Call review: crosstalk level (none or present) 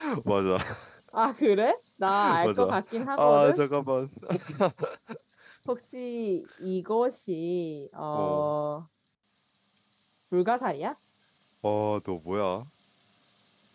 present